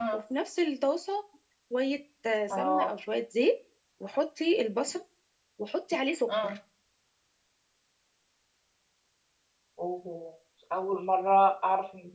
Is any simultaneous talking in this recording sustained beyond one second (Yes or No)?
No